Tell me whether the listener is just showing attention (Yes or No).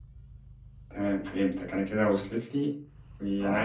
Yes